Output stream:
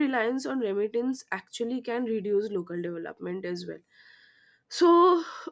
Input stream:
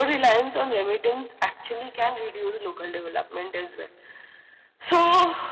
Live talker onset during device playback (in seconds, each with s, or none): none